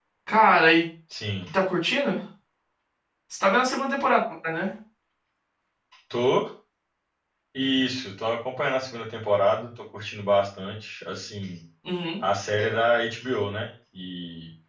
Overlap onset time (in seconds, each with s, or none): none